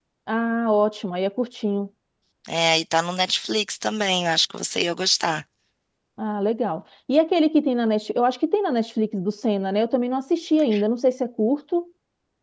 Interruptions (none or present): none